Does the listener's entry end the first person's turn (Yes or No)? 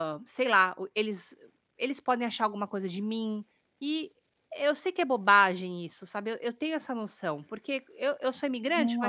Yes